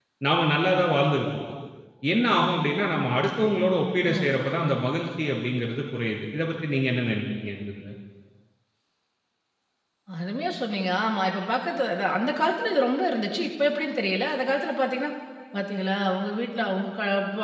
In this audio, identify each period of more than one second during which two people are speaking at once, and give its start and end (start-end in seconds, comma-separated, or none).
none